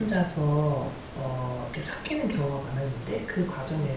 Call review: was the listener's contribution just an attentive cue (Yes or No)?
Yes